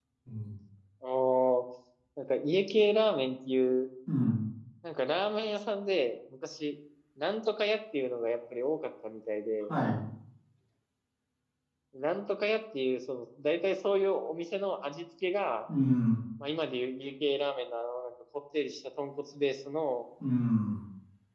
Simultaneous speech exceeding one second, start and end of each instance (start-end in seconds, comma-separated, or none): none